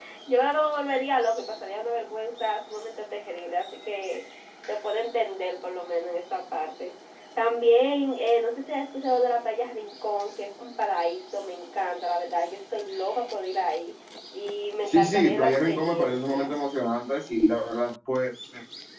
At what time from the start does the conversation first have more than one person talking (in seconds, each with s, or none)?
14.9 s